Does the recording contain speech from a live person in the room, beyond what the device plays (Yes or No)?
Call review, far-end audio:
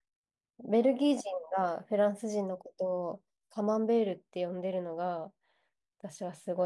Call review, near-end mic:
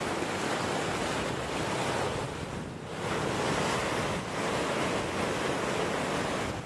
No